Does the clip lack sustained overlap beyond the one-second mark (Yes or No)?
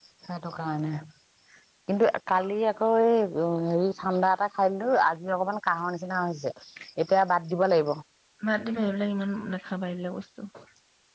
Yes